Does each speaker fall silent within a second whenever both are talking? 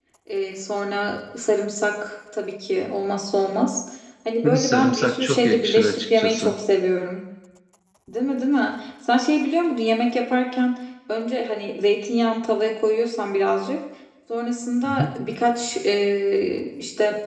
No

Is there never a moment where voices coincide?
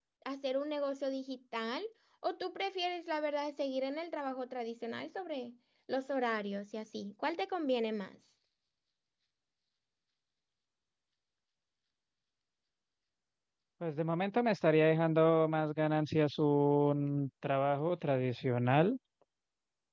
Yes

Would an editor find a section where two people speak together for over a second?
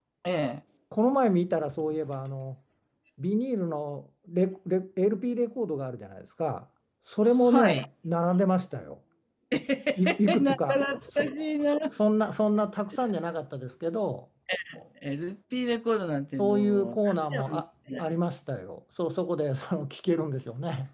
Yes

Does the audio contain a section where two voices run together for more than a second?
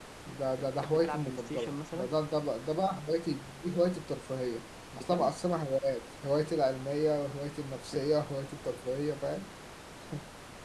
Yes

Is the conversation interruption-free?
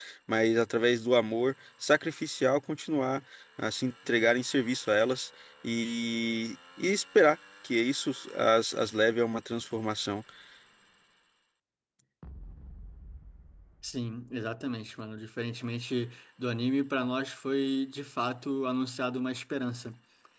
Yes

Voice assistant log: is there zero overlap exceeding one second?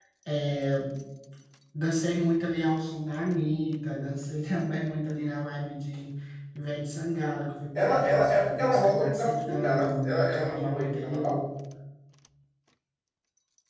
No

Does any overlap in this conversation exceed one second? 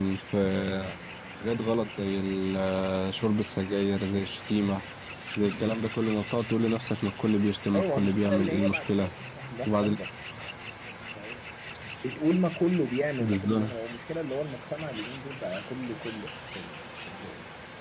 Yes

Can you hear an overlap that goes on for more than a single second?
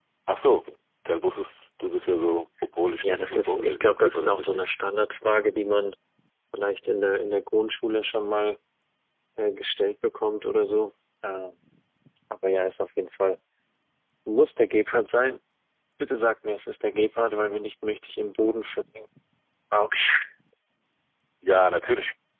Yes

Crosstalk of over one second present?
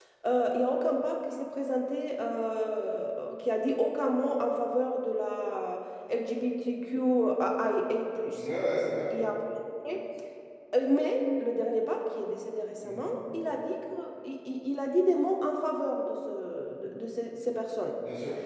No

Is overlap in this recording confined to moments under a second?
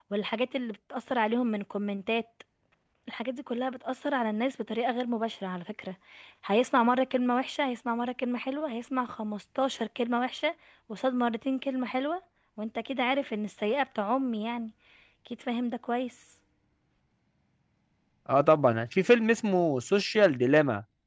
Yes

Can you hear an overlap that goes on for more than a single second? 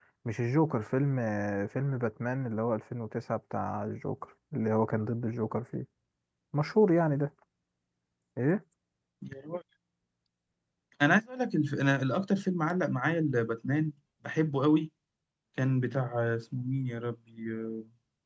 No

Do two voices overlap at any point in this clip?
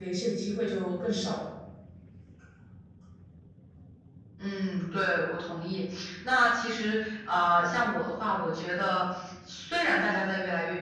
No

